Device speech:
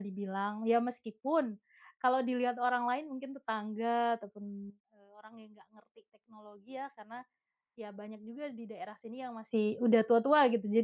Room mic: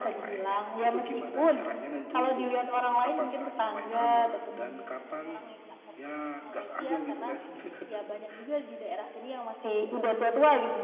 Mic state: both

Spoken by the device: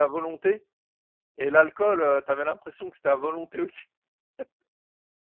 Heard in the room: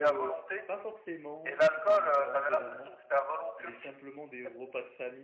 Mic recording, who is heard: both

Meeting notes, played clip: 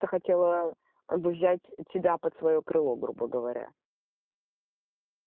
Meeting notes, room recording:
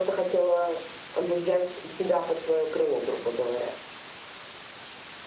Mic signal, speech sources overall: echo only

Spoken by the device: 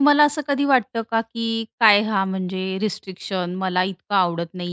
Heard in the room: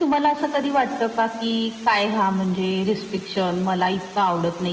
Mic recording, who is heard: echo only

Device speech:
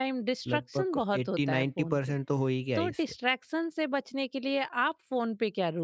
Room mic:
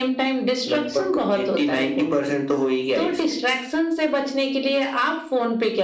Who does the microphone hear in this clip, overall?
echo only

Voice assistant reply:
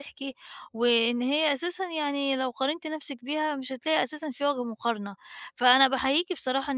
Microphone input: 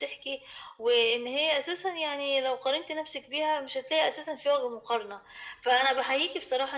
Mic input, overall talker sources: echo only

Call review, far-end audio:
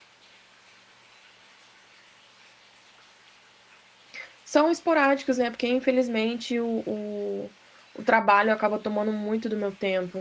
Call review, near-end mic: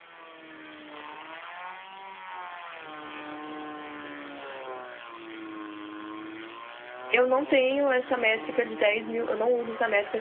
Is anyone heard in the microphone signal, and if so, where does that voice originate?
user only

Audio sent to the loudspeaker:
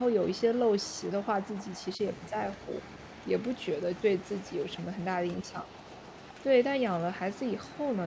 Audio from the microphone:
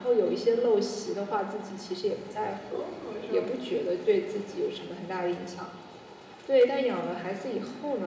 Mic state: both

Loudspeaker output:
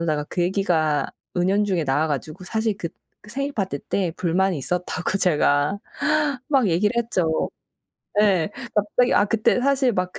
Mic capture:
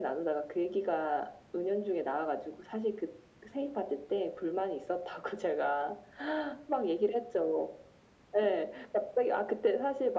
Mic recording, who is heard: echo only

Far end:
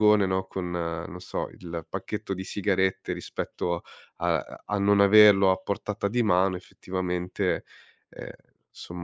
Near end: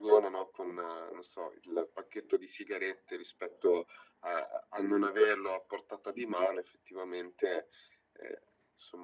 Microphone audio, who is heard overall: echo only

